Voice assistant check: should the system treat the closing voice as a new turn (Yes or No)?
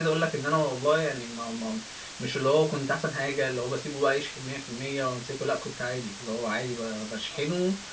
Yes